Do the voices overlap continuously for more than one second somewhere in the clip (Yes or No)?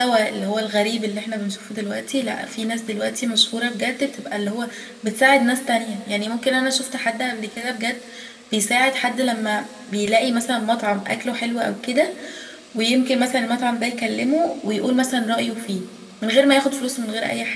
No